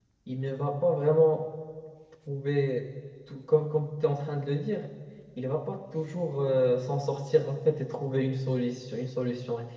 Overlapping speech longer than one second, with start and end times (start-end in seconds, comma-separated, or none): none